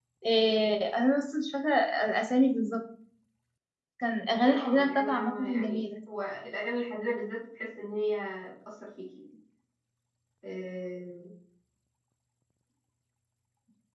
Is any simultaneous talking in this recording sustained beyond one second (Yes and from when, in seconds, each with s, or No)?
Yes, from 4.4 s